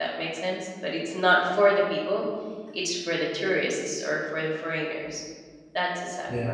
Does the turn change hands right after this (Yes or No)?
Yes